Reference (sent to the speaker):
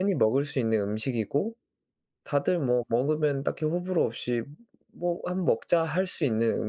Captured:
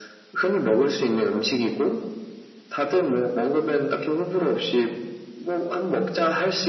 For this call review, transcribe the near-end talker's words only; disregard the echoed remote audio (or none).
none